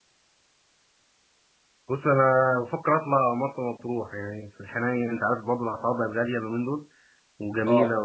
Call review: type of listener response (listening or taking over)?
listening